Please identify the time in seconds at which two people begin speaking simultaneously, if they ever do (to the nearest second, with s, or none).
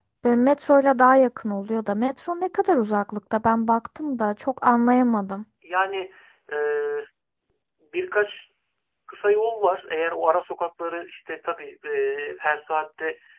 none